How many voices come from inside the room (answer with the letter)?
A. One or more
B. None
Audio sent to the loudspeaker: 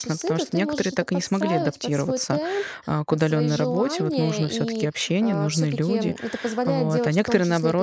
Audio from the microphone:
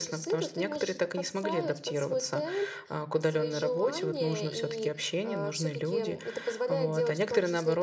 B